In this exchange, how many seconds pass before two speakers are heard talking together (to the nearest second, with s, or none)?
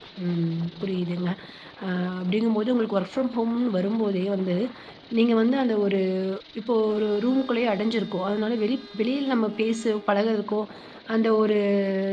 none